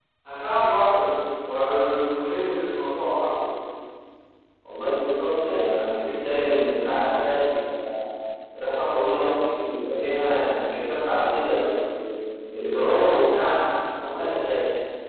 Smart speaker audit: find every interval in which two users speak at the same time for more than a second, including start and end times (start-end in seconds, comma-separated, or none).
none